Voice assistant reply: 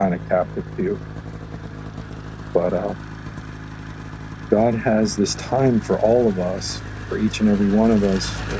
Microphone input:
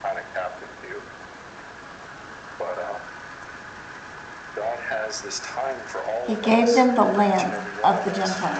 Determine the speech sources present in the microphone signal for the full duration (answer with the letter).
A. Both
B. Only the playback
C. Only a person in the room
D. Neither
A